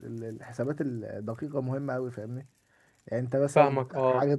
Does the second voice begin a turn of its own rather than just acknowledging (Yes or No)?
Yes